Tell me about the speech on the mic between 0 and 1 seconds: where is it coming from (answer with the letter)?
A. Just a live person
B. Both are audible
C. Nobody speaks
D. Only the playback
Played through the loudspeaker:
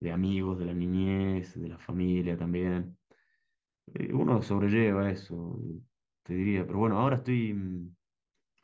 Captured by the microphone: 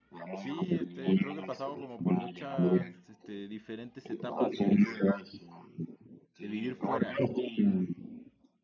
B